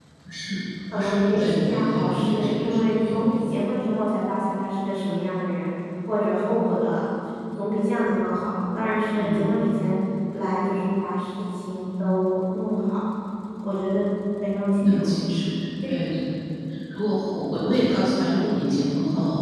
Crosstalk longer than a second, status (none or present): present